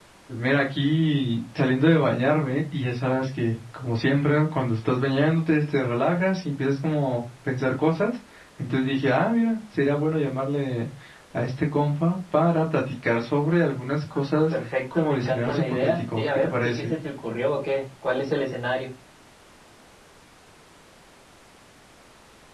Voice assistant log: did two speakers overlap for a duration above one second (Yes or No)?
Yes